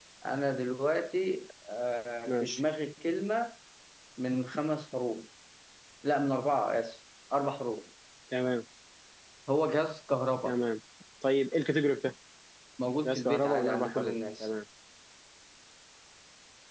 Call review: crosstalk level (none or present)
present